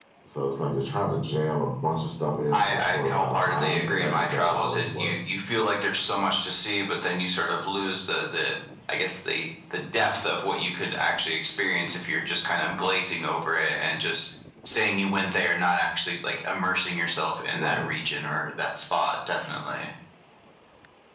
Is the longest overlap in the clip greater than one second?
Yes, from 2.5 s

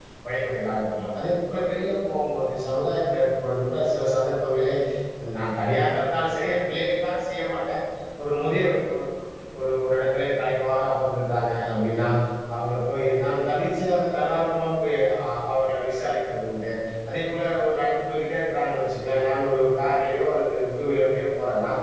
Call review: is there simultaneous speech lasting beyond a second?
No

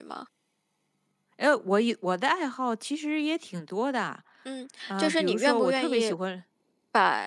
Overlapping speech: Yes, from 4.9 s

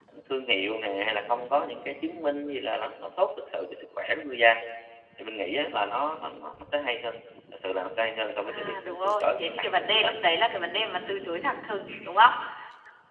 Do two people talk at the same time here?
Yes, from 8.4 s

